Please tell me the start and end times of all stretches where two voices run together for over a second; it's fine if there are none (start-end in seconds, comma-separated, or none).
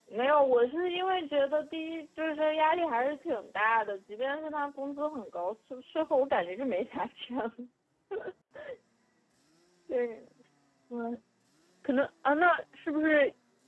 none